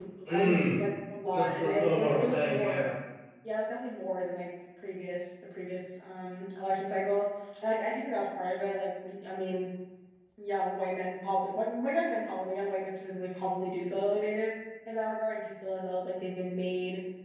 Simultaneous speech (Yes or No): Yes